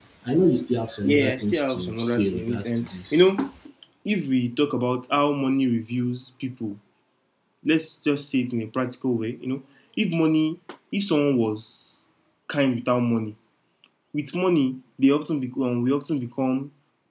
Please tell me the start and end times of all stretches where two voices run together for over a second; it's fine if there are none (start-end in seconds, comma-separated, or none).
1.0-3.3